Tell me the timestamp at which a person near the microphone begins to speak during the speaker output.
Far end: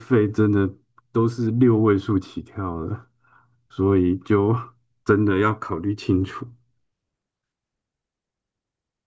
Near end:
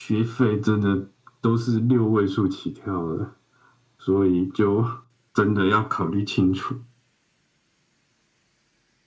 none

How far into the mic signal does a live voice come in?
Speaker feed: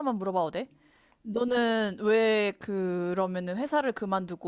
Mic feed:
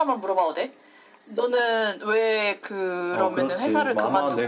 3.1 s

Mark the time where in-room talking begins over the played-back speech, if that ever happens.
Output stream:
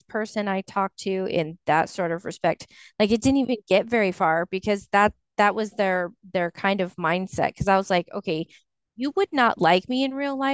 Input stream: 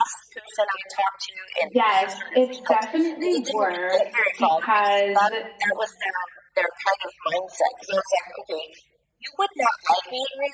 1.6 s

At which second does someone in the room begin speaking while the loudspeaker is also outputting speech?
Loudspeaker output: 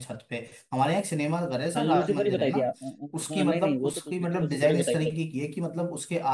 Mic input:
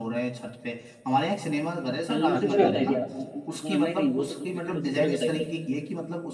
2.4 s

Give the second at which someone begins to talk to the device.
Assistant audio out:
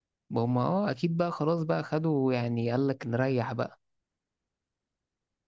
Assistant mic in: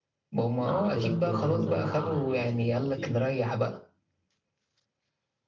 0.6 s

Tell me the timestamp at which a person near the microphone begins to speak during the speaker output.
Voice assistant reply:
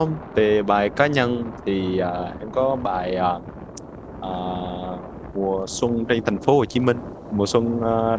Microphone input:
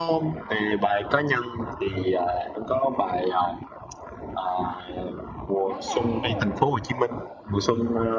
5.7 s

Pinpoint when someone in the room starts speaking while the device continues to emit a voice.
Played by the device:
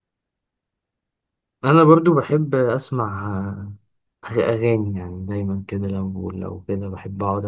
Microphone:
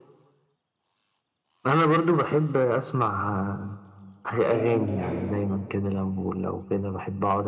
4.4 s

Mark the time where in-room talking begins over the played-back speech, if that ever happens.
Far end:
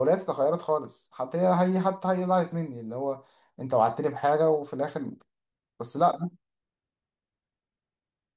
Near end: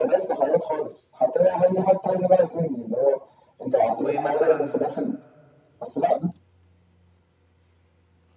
4.0 s

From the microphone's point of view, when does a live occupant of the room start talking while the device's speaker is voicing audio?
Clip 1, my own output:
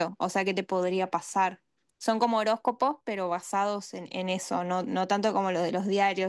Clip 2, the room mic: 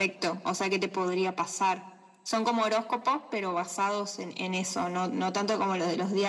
none

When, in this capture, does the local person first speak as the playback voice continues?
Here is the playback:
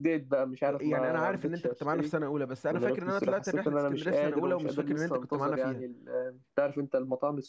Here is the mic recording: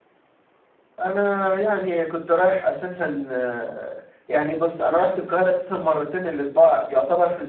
1.0 s

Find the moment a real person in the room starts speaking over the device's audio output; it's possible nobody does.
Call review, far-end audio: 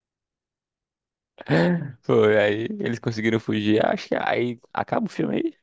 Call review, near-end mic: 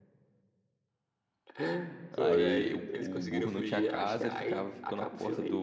2.2 s

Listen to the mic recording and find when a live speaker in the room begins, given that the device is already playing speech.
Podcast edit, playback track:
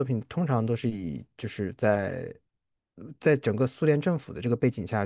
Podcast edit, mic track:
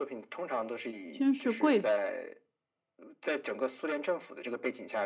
1.1 s

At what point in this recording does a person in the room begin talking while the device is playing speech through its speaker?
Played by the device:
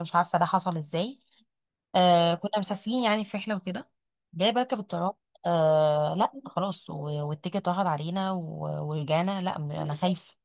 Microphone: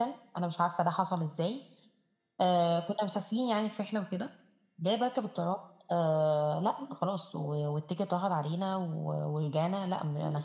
none

